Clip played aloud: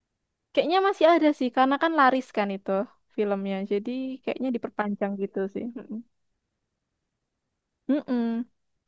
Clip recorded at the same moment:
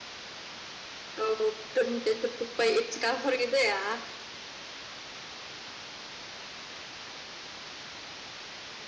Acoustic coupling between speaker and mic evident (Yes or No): No